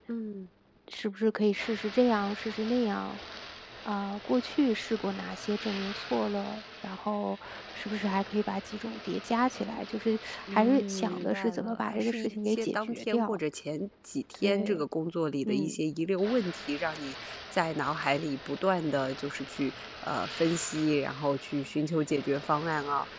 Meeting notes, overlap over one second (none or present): present